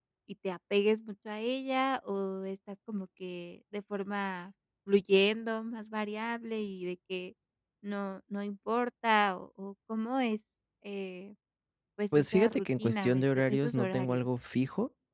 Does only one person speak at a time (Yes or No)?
No